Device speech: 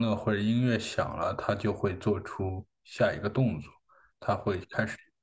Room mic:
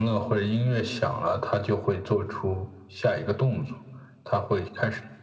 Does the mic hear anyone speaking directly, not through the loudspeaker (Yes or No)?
No